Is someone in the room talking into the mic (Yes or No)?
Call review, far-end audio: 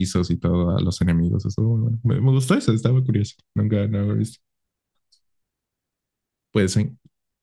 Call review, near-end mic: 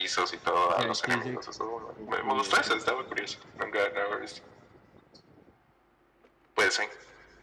Yes